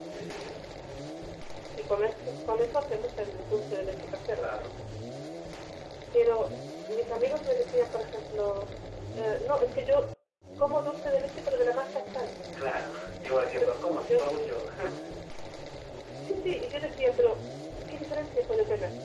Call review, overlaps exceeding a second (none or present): none